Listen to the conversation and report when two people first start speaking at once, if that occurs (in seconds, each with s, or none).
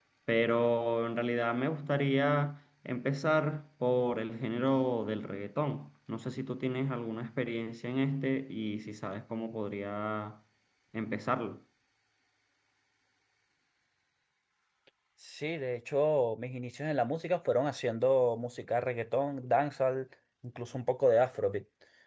none